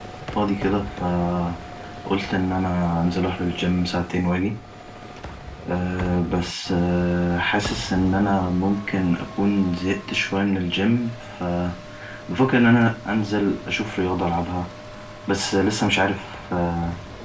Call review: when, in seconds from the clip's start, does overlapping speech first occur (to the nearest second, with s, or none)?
none